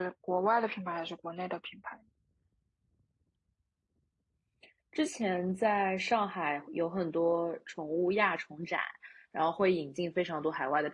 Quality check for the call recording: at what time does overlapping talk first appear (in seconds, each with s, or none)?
none